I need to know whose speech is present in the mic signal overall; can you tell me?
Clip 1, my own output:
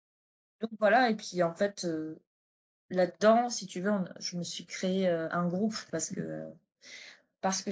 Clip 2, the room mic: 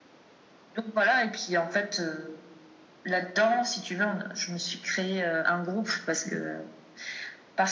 echo only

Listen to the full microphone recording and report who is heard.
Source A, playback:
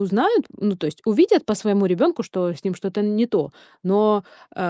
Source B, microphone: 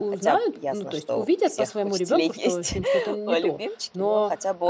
both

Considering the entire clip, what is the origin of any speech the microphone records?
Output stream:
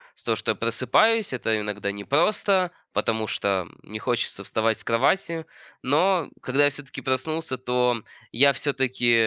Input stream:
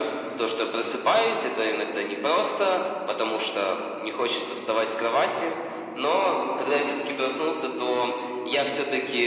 echo only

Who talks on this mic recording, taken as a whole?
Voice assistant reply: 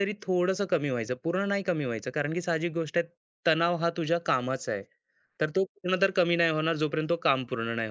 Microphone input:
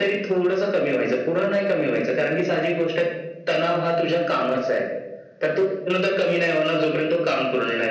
echo only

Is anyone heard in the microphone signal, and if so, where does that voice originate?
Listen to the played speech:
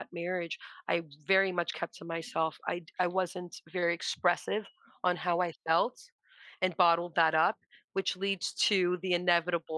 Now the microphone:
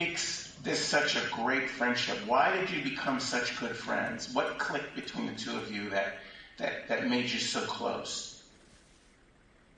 user only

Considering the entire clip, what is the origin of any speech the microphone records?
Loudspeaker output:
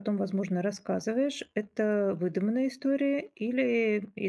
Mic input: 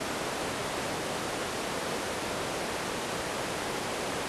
neither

